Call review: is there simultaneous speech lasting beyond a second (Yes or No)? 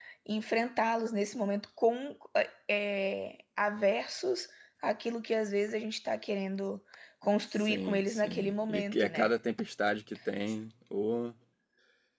Yes